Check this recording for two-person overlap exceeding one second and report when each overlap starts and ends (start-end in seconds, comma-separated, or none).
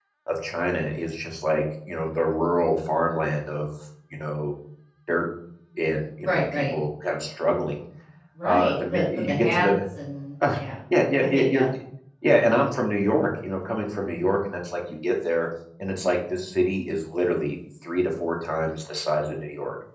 8.4-9.7